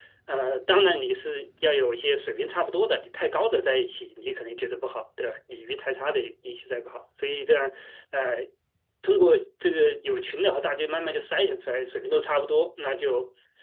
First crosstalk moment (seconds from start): none

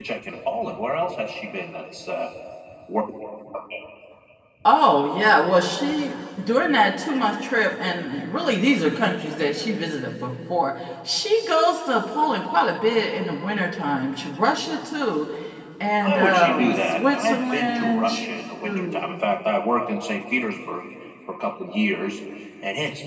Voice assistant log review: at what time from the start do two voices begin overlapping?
16.0 s

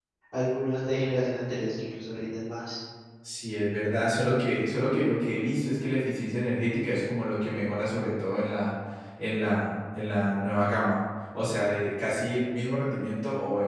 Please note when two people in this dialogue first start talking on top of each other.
none

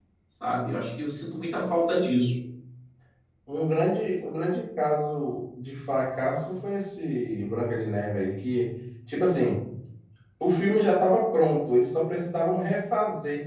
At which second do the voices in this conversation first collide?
none

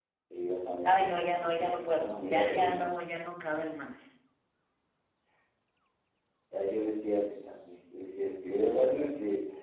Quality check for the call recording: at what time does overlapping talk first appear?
0.8 s

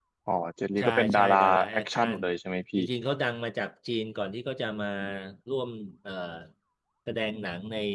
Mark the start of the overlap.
0.8 s

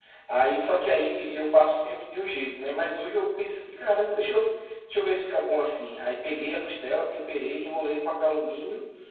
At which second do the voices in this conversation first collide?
none

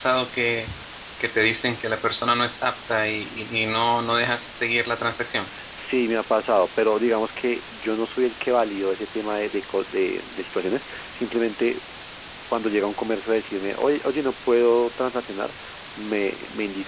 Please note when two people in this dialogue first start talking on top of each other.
none

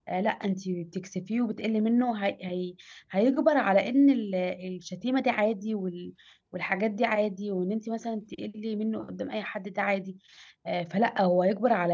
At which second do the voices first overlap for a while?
none

